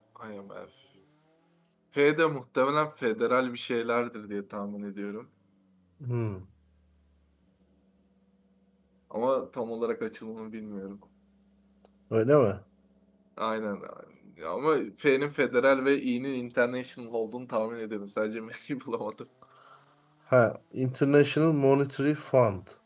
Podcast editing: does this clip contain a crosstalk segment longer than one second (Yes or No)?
No